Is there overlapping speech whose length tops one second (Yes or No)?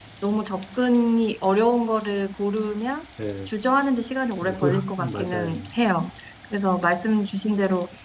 Yes